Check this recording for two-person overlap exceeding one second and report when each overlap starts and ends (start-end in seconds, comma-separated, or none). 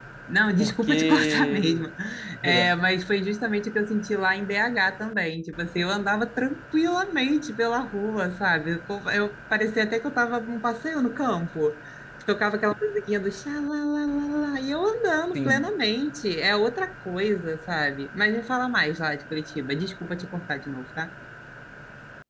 0.6-1.9